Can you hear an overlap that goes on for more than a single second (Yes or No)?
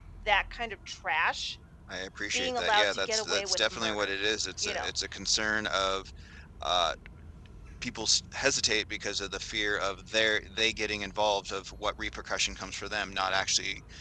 Yes